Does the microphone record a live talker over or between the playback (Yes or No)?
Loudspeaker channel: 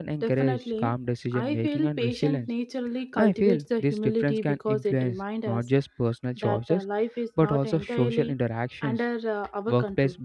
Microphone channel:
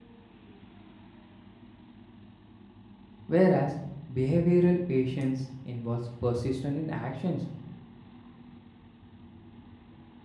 Yes